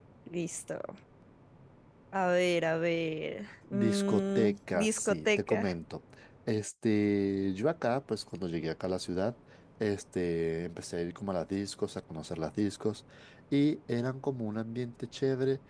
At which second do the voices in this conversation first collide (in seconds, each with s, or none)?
3.7 s